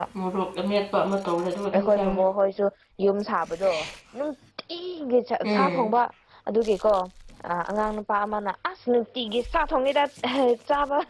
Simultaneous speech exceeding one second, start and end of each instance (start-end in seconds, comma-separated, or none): none